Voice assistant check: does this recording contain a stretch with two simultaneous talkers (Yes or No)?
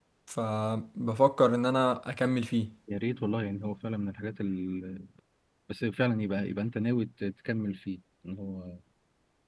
No